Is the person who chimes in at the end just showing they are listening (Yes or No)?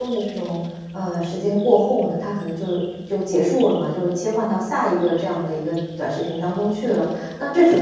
Yes